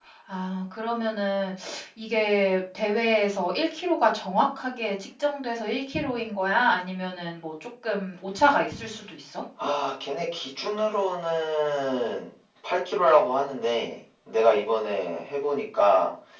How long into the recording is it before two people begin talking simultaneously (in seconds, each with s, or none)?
none